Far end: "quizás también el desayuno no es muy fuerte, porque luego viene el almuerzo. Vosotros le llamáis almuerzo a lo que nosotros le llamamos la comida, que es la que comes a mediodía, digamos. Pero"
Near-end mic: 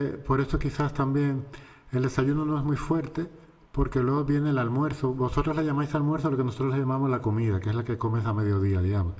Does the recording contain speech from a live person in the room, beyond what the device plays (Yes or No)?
No